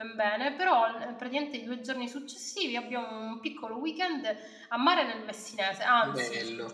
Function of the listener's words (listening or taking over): listening